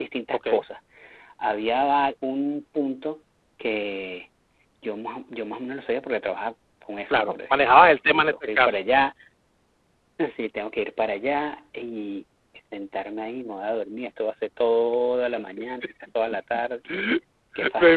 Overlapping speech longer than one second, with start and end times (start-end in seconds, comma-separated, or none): 7.1-8.8